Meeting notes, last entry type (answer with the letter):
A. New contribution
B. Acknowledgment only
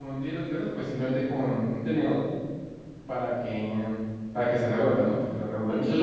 B